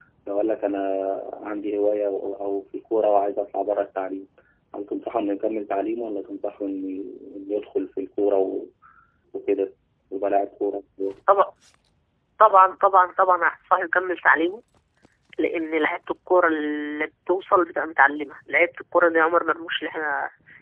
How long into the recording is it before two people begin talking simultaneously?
none

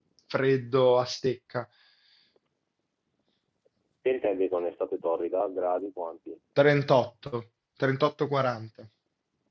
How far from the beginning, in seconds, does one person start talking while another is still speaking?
none

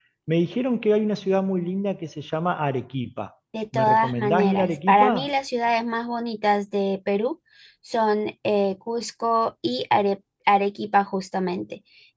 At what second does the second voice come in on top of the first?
3.5 s

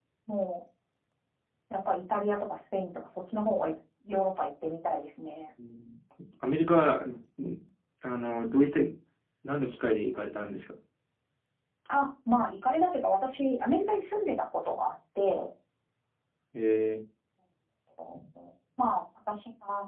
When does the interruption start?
none

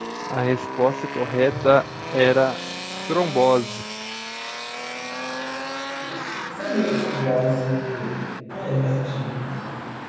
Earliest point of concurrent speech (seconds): none

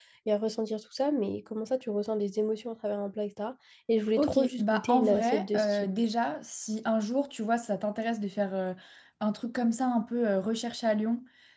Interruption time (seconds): 4.2 s

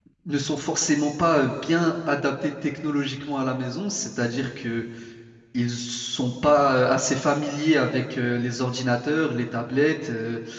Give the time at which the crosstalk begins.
none

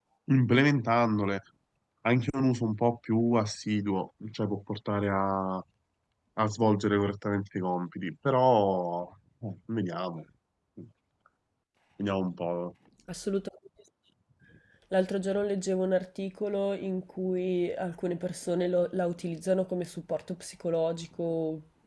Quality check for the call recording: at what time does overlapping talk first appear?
none

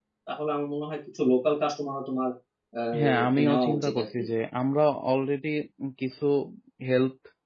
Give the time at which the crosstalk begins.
3.0 s

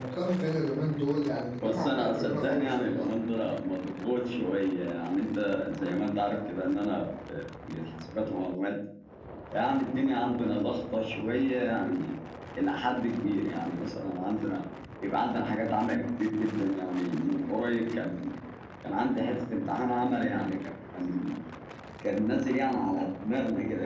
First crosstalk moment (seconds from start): 1.6 s

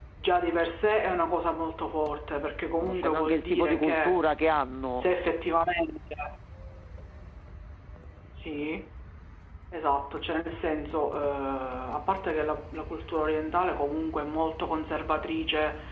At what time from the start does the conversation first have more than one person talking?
2.8 s

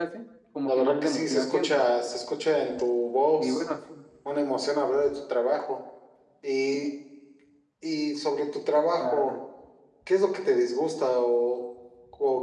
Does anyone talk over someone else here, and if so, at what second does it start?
0.7 s

